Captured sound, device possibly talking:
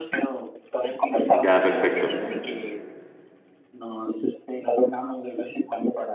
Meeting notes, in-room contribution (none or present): present